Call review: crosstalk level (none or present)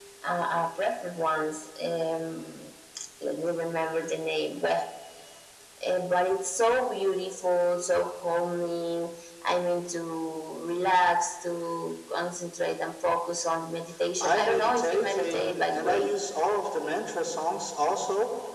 present